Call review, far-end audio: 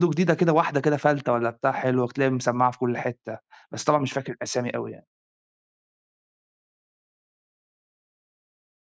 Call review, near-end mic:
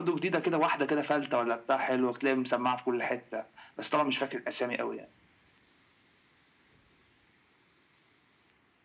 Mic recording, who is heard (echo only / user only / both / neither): echo only